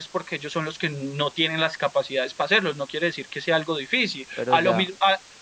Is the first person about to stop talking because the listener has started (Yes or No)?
No